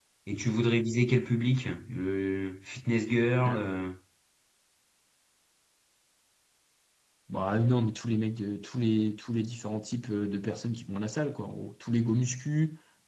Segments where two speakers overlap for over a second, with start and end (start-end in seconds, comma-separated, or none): none